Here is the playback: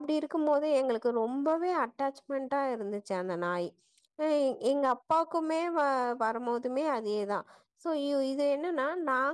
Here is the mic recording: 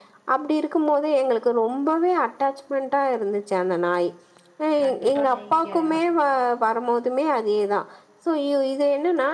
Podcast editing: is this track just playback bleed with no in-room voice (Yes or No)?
No